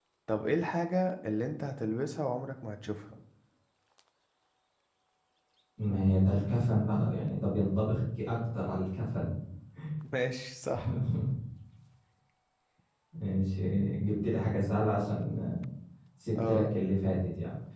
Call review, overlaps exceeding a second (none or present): none